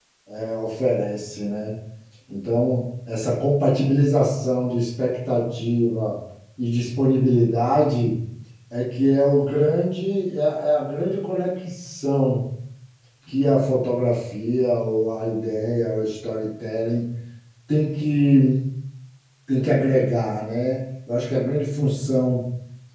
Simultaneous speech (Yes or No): No